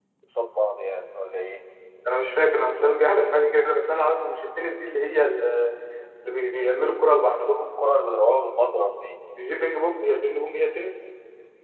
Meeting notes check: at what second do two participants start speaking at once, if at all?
none

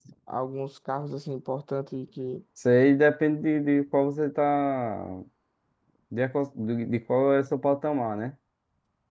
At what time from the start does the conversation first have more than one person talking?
none

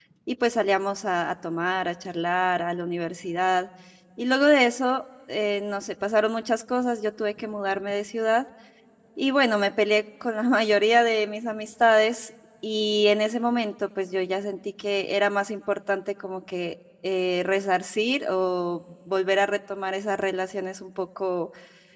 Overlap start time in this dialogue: none

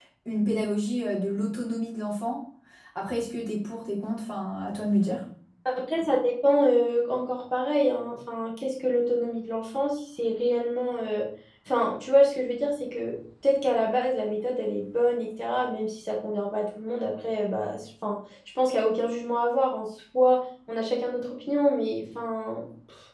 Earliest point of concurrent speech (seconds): none

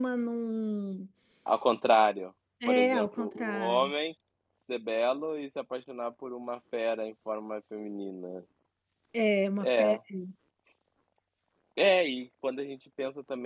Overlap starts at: 3 s

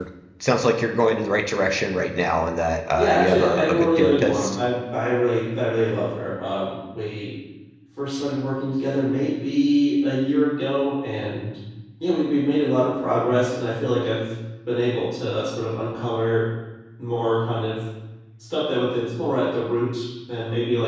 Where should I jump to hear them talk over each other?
3 s

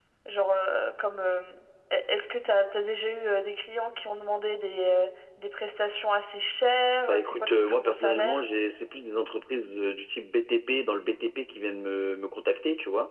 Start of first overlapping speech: 7 s

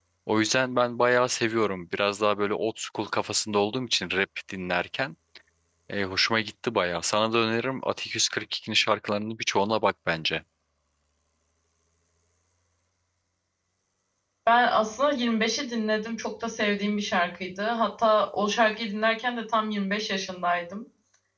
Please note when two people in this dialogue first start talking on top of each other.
none

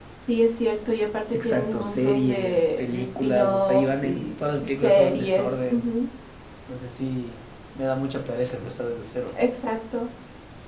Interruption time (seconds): 1 s

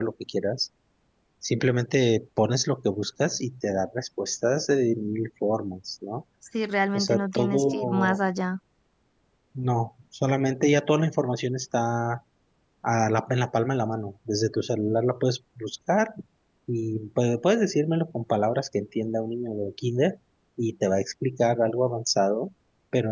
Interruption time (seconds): 7 s

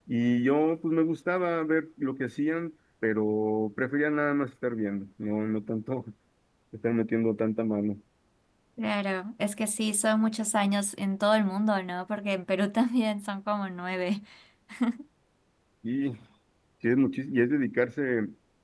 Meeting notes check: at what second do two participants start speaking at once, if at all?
none

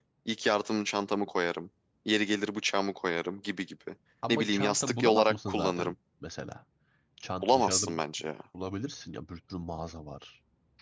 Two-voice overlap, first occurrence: 4 s

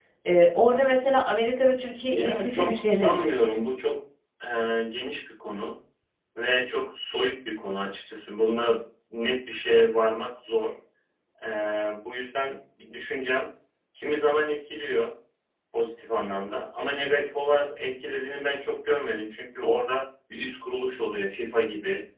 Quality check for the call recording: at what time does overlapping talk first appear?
2 s

